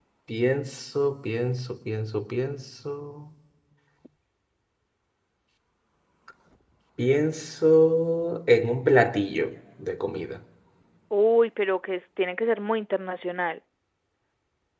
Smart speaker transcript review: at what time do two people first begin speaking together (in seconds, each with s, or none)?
none